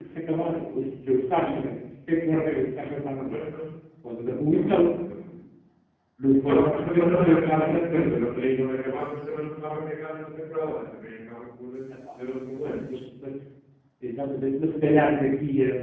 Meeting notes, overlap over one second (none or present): present